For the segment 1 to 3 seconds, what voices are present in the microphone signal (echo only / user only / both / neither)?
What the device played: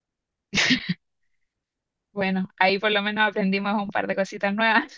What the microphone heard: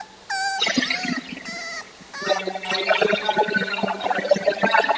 echo only